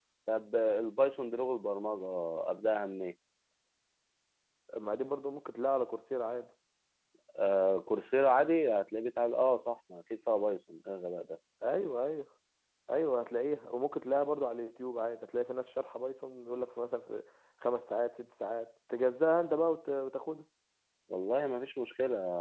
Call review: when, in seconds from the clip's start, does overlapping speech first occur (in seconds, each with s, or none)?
none